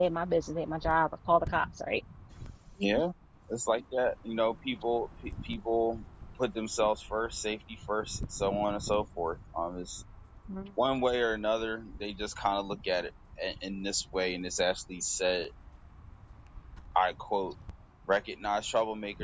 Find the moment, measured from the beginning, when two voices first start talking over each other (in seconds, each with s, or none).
none